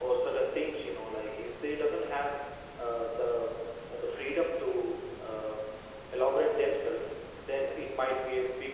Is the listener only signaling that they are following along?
Yes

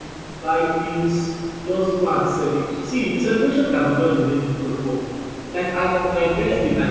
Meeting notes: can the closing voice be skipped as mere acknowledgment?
Yes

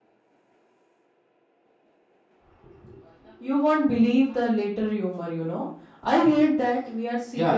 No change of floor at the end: No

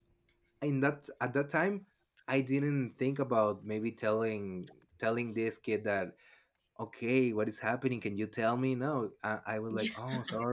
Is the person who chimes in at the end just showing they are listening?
Yes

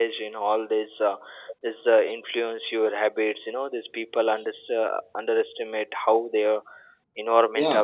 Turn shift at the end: Yes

